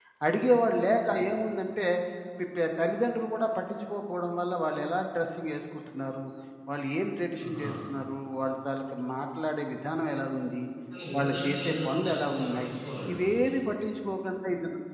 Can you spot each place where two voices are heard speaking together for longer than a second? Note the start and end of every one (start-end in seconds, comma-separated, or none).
11.2-12.7